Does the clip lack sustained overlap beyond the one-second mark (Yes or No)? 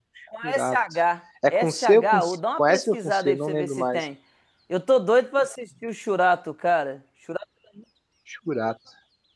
No